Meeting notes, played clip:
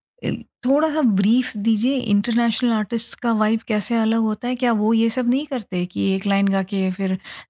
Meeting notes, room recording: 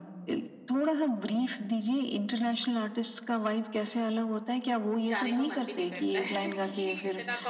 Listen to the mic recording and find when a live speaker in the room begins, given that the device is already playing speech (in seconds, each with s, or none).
5.1 s